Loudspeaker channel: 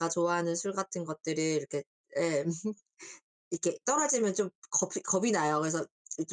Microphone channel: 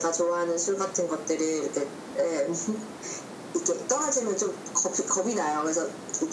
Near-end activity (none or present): none